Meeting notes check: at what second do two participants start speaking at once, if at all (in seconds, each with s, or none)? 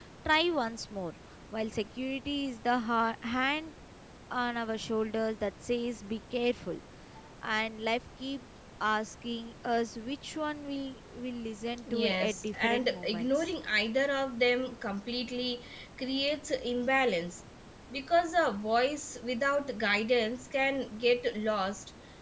11.9 s